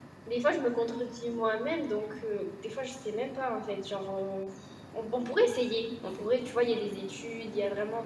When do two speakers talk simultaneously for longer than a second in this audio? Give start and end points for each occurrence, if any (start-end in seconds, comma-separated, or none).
none